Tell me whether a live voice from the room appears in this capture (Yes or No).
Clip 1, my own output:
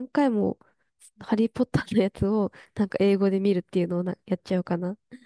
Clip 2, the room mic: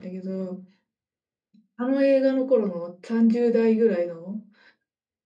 Yes